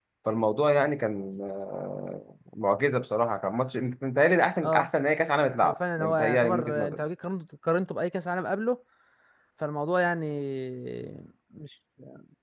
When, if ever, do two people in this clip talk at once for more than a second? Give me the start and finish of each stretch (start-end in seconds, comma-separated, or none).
5.6-7.0